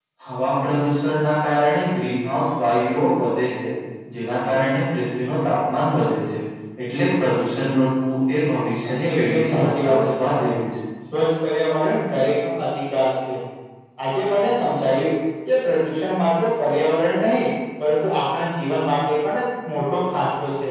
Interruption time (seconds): 8.8 s

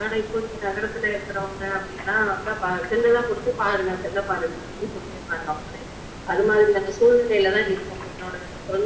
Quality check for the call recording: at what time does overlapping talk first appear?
none

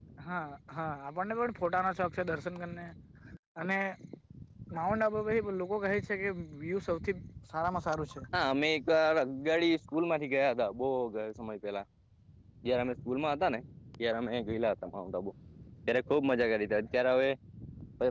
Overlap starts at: none

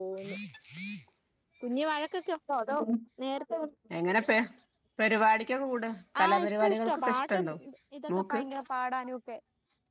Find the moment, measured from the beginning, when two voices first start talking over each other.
6.2 s

